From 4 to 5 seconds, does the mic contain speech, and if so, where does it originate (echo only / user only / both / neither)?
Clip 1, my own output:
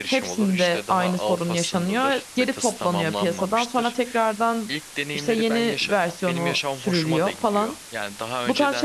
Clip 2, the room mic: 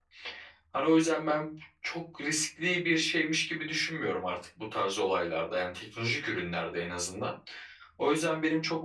user only